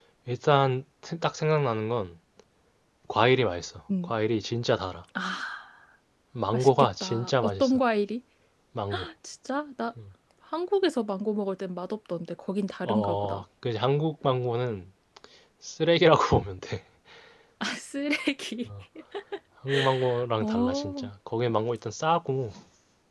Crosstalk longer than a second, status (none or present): present